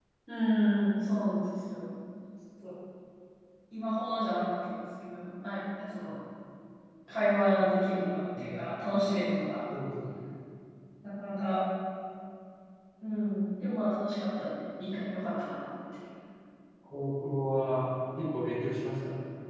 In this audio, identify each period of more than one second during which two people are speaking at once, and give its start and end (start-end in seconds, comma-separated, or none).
none